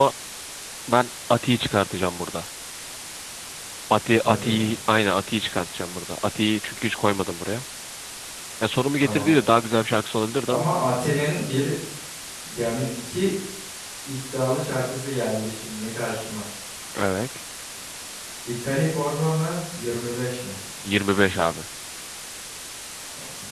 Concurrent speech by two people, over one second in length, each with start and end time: none

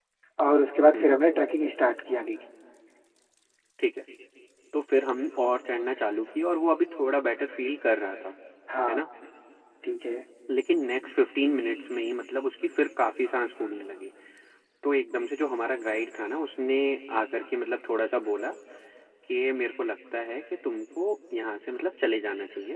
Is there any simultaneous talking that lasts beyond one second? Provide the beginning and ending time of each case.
none

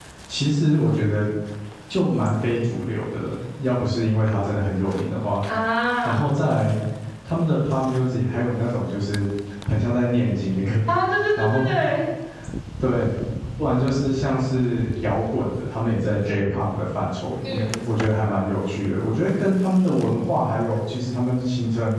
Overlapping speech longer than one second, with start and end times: none

